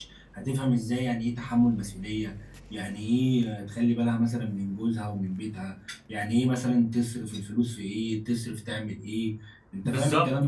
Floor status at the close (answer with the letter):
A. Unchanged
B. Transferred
B